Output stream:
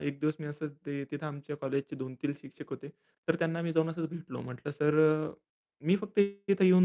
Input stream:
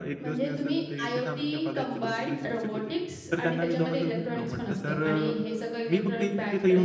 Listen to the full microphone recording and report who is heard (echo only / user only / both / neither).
both